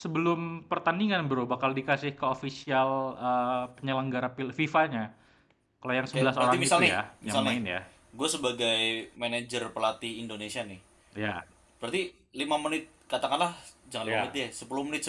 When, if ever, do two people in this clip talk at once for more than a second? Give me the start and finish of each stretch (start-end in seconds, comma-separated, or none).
6.1-7.6